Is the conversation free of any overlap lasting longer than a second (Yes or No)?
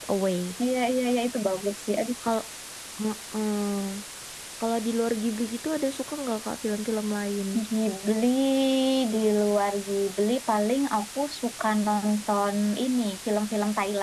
Yes